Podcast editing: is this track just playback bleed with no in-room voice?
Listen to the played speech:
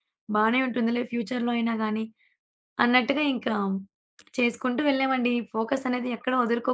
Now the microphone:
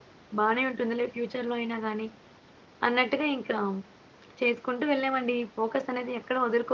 Yes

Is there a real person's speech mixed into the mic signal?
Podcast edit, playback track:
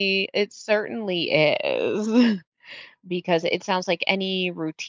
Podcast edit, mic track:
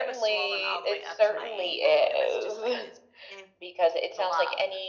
Yes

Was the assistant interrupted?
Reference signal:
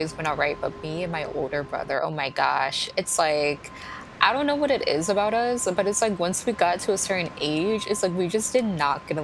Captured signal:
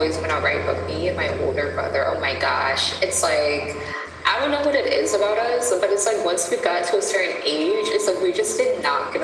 No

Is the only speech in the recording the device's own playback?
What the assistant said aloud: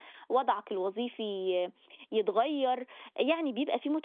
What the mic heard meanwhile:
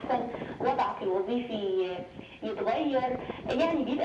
Yes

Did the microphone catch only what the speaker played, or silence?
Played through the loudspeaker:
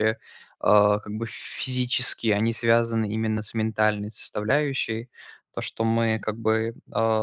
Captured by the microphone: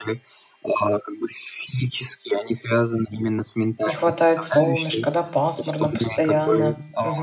No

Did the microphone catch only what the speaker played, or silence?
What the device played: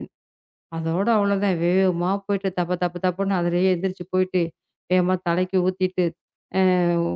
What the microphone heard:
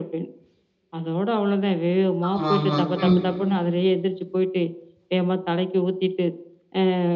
No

